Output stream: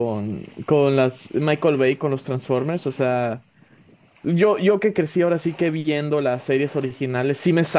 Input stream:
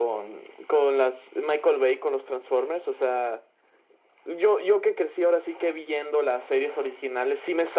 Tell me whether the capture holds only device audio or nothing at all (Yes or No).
Yes